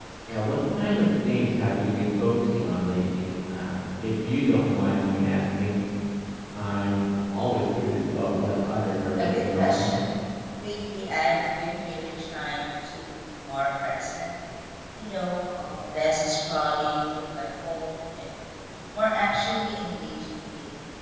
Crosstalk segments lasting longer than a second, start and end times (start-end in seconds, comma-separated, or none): 8.3-9.9